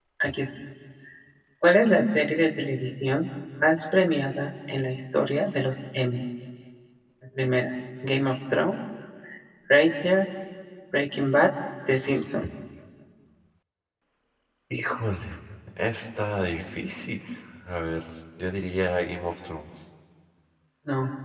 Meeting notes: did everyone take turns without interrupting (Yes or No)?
Yes